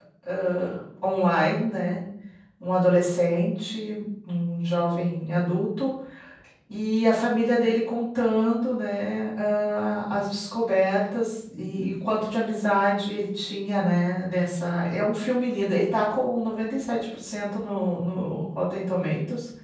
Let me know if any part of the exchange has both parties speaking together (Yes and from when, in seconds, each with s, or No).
No